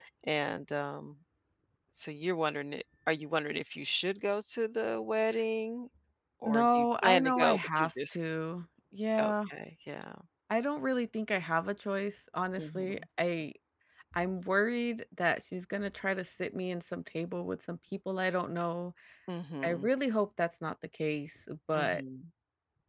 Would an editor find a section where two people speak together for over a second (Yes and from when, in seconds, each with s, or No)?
Yes, from 6.4 s